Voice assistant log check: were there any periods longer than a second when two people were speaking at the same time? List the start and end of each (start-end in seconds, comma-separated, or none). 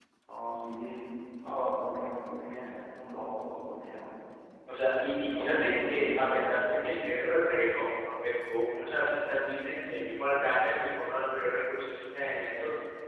5.2-6.5